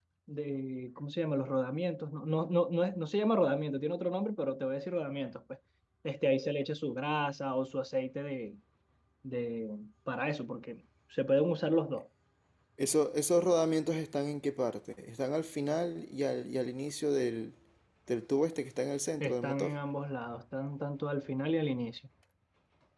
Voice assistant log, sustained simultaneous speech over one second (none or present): none